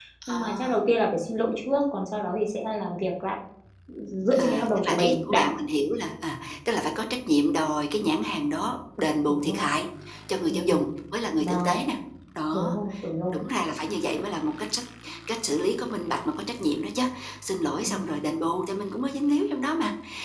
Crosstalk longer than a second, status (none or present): present